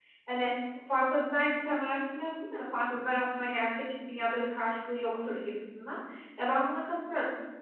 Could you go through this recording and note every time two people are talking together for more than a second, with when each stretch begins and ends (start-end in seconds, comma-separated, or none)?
none